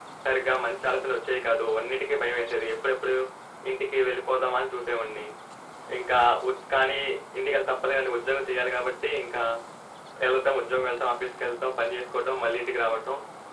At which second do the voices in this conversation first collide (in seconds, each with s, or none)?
none